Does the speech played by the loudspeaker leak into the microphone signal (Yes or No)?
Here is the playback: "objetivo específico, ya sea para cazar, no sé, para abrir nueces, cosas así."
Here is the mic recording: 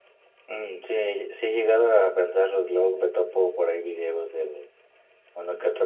No